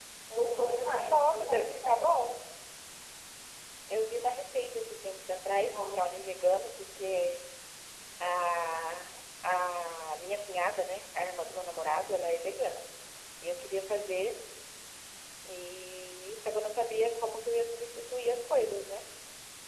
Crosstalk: present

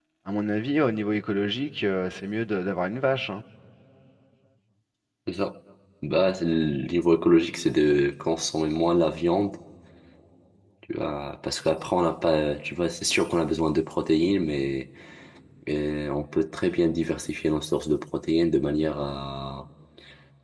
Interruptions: none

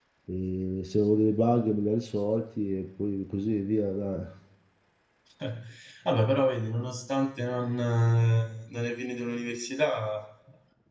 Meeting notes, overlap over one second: none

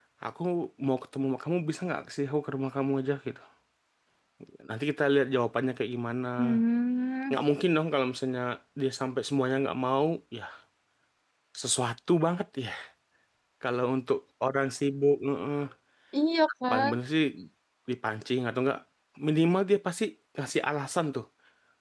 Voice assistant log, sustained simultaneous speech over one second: none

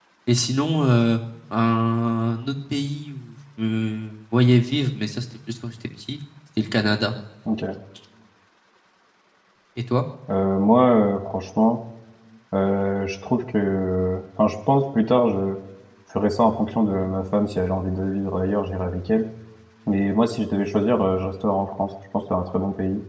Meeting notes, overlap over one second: none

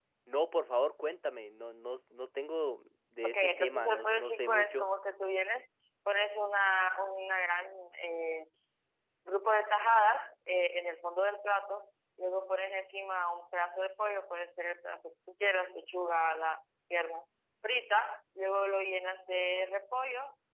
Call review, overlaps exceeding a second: present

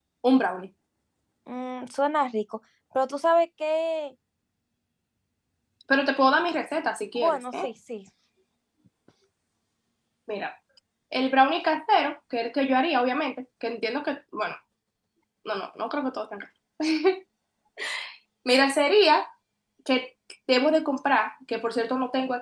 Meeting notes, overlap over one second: none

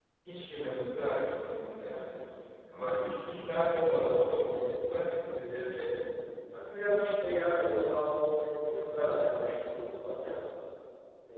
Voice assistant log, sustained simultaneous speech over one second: none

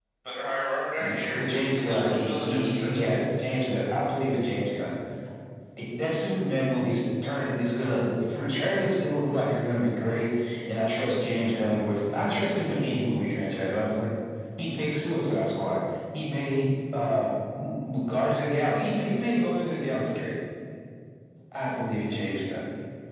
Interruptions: present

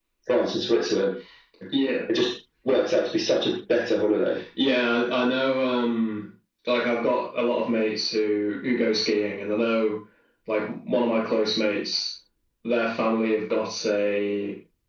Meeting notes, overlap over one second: none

